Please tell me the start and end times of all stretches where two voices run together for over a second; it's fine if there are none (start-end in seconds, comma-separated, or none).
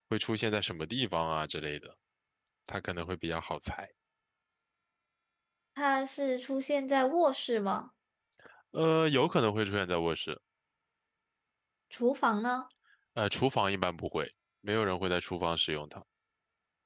none